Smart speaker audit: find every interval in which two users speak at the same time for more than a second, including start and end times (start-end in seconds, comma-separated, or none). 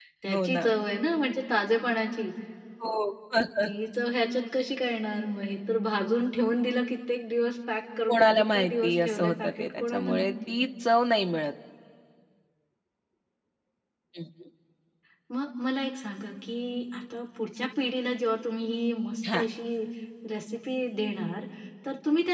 8.1-10.6